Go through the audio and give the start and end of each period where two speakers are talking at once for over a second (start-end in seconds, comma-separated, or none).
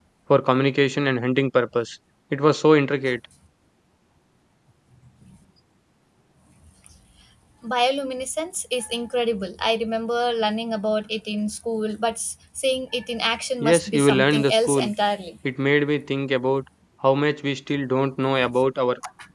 13.6-14.9